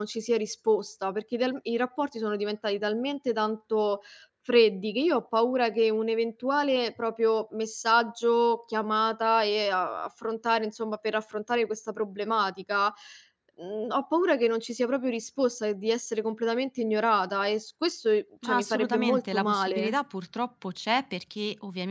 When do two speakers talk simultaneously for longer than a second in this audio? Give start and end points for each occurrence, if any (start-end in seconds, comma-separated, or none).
18.4-19.9